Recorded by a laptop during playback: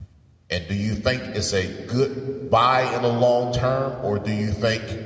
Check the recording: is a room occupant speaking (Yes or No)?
Yes